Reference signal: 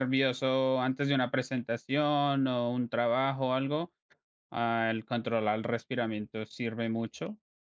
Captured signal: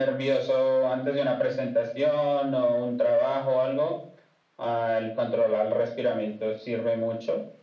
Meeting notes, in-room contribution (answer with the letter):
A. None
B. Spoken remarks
A